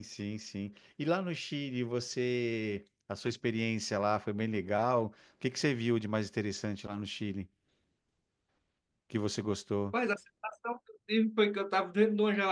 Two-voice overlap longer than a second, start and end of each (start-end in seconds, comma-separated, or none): none